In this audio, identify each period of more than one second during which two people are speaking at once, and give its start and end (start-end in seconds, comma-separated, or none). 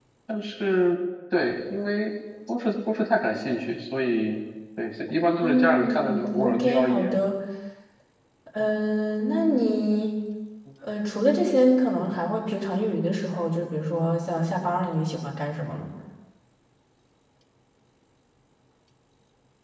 5.4-7.1